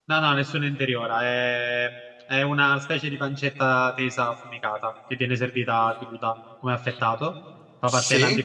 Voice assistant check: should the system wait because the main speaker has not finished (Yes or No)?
Yes